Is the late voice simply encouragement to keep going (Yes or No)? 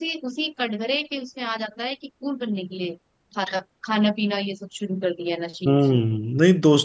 No